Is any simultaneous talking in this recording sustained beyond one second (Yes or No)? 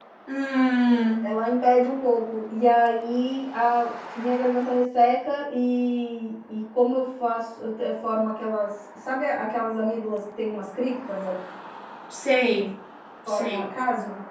No